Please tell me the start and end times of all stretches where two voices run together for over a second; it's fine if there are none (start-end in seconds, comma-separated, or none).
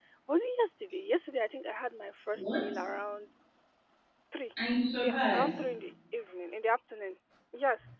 none